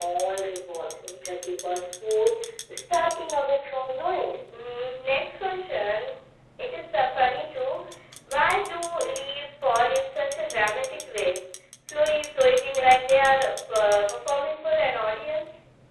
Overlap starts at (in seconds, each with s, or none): none